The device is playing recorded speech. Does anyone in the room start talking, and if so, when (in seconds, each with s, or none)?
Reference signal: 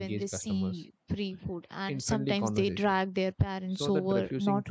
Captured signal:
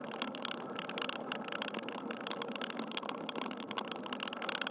none